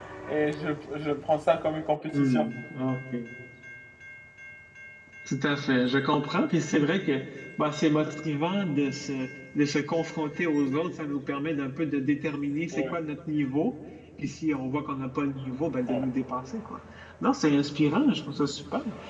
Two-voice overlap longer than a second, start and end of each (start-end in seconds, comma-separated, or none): none